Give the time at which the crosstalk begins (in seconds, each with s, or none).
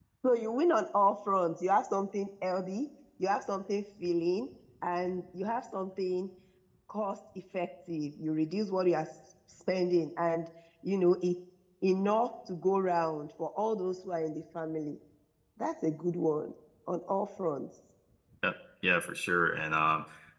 none